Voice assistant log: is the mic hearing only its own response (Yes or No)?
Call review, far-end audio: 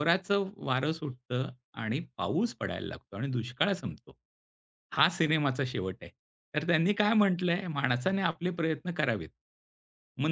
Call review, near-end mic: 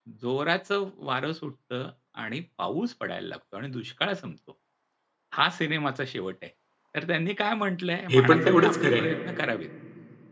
No